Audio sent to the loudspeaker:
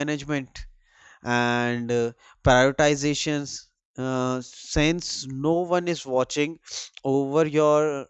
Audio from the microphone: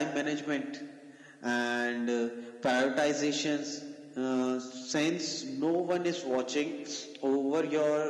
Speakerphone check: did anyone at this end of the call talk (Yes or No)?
No